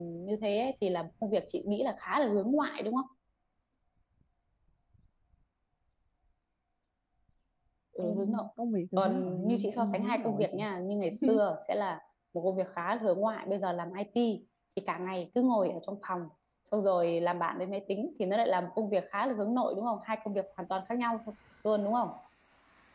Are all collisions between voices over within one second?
No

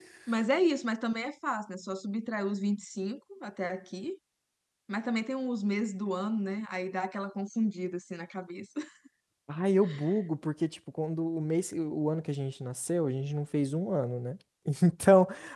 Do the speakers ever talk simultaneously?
No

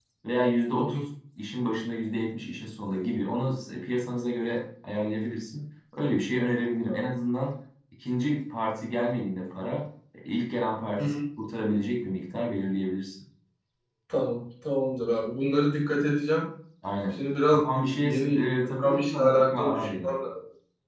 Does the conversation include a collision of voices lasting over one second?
Yes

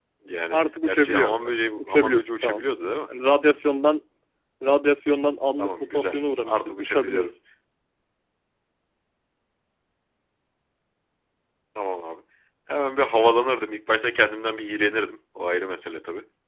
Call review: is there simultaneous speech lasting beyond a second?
Yes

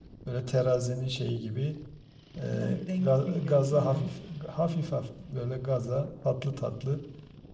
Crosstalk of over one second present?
Yes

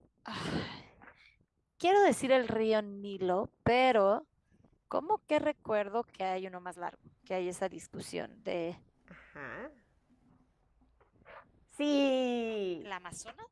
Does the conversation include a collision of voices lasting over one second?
No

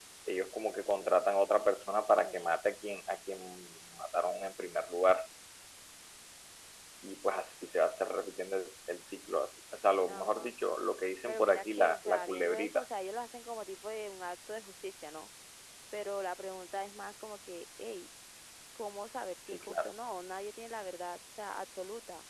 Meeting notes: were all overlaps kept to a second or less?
No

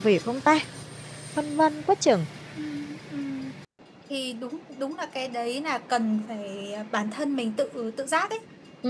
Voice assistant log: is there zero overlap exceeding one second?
Yes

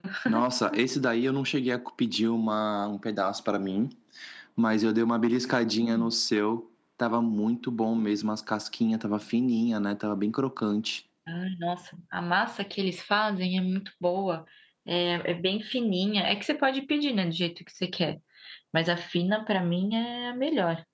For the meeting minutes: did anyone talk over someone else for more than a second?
No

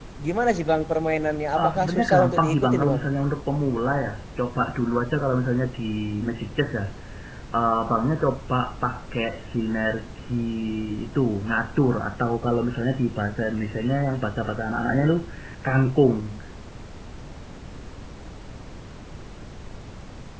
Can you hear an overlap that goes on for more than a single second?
Yes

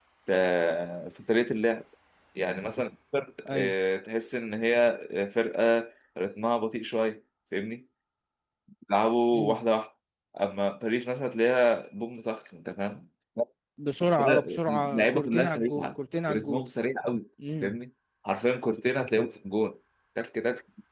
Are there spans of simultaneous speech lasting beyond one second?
Yes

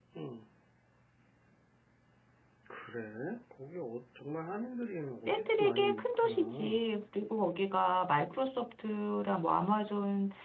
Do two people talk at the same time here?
Yes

